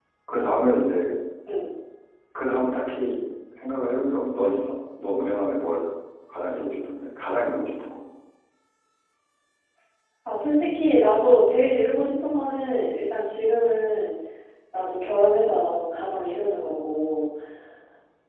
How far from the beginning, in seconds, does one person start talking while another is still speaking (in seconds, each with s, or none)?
none